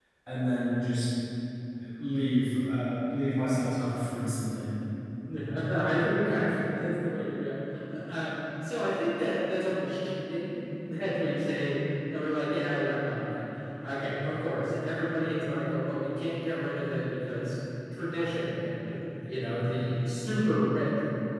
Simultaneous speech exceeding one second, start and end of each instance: none

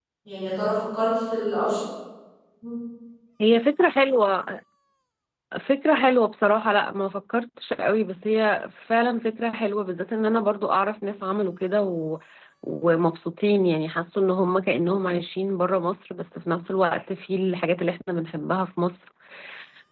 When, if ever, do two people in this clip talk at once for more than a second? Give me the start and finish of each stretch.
none

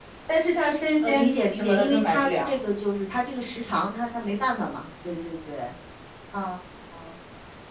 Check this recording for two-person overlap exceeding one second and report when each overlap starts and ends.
1.0-2.6

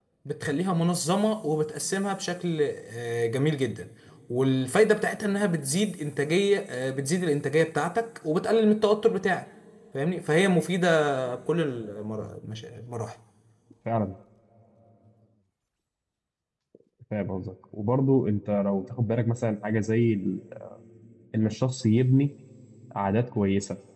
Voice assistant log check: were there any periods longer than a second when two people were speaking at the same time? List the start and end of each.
none

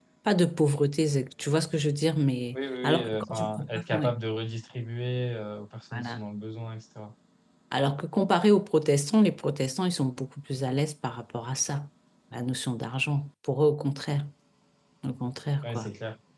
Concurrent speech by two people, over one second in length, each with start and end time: 2.8-4.2

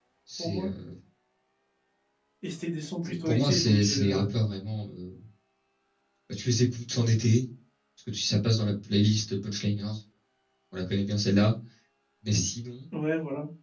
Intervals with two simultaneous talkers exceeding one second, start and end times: 3.0-4.3

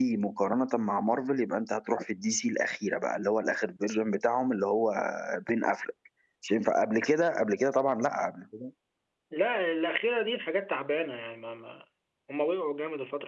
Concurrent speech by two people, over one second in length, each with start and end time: none

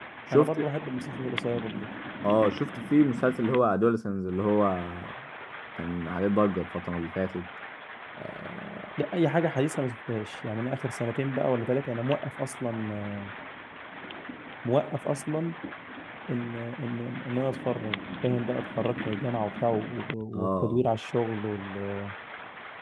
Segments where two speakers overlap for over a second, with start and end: none

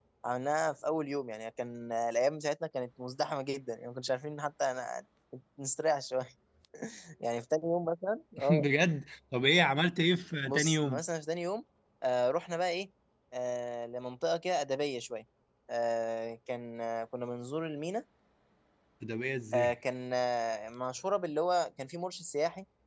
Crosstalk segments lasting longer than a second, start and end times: none

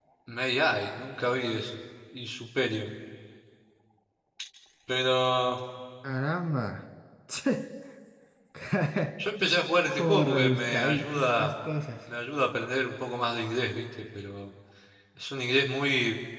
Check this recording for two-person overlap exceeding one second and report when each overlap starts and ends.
9.9-11.5

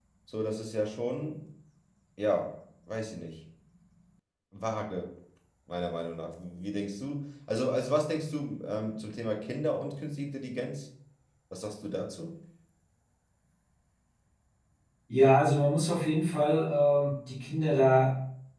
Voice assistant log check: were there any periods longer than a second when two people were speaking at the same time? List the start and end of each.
none

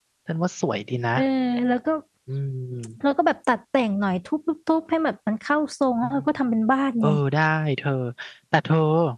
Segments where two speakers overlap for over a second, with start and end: none

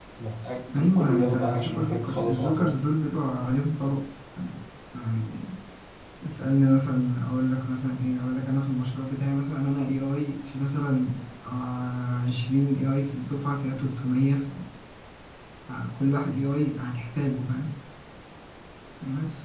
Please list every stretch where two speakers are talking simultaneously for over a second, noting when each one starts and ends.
0.7-2.8

